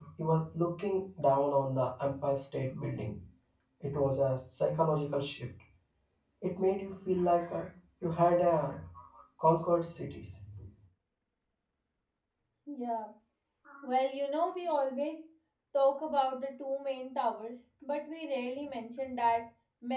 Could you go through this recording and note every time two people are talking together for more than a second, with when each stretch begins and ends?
none

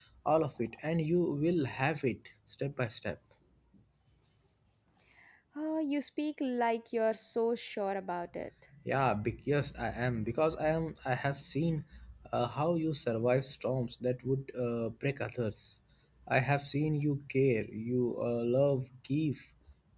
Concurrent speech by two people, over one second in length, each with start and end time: none

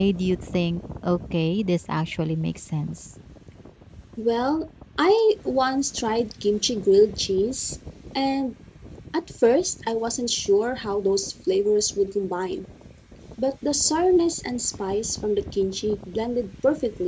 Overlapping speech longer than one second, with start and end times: none

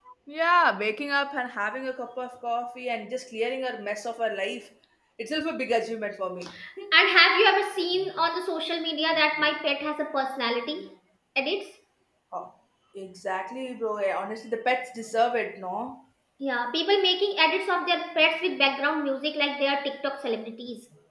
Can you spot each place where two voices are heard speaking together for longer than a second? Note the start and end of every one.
none

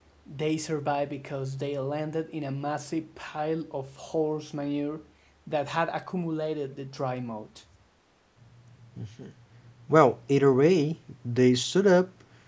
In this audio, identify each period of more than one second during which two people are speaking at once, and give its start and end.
none

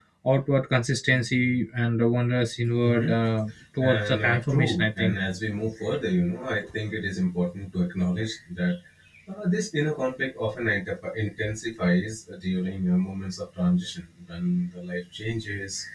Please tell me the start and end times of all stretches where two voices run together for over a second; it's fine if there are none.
4.0-5.2

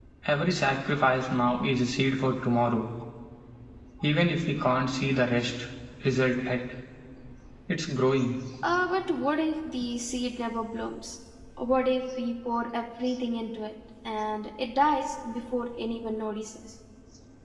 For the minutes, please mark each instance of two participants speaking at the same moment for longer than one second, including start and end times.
none

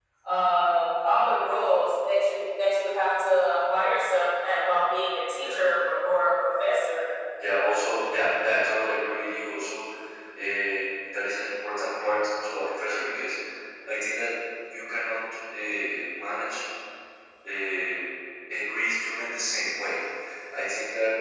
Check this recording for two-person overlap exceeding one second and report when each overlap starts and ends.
none

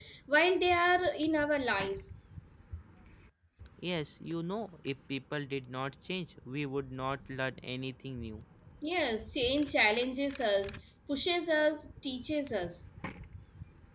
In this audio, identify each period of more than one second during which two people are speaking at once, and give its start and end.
none

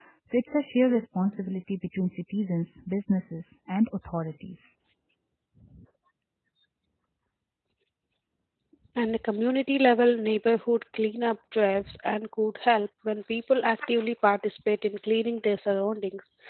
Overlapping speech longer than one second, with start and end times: none

